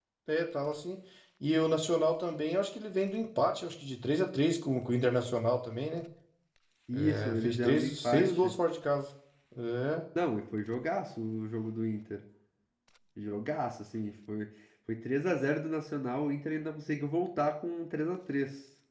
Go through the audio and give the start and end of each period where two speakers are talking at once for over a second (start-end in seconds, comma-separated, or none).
6.9-8.5